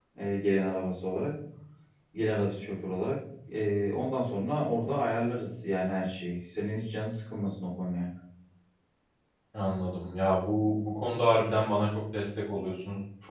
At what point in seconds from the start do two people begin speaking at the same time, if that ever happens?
none

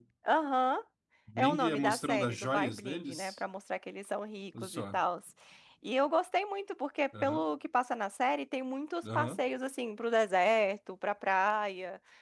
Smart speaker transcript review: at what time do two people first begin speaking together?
1.4 s

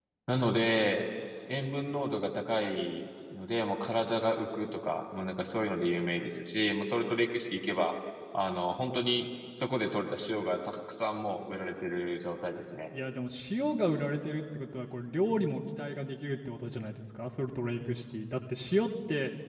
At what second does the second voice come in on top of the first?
none

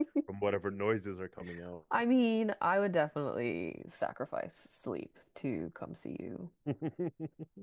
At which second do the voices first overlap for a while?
none

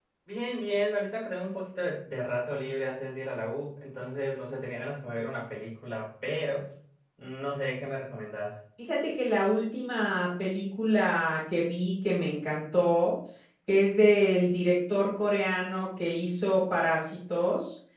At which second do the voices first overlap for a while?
none

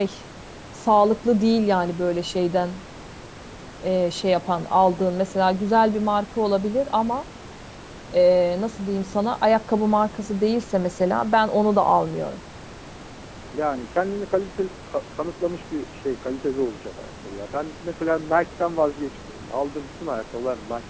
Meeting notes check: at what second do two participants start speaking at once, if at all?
none

